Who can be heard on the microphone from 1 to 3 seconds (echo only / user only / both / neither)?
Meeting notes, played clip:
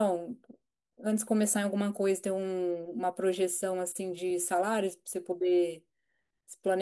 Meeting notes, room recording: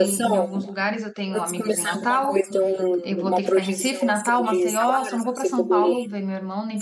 both